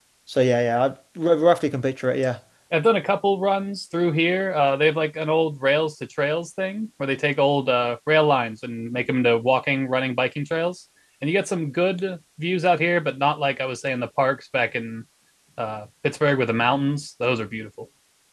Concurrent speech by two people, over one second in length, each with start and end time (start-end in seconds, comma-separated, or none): none